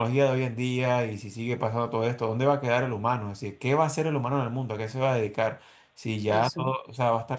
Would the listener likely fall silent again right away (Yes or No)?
Yes